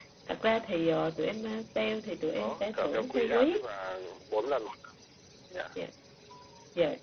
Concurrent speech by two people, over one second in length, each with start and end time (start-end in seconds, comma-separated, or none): 2.4-3.6